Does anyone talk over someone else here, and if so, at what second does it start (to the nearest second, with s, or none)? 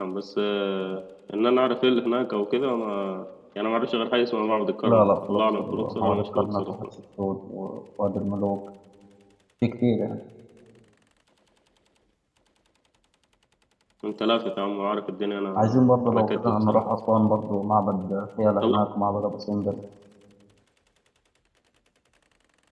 5 s